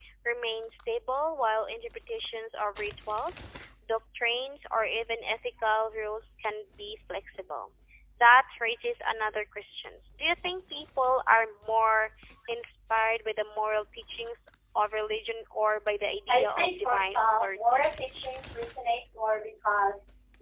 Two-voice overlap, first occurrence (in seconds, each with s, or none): 16.3 s